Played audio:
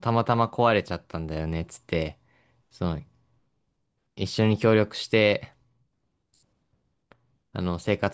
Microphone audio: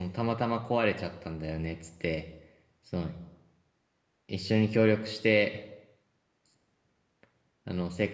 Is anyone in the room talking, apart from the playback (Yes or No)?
No